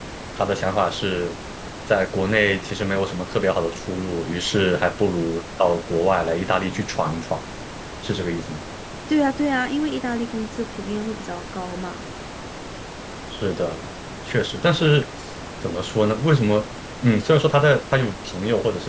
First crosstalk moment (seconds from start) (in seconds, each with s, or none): none